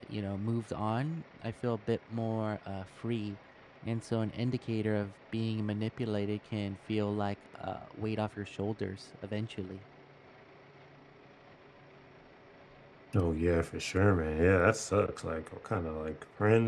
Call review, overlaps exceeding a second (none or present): none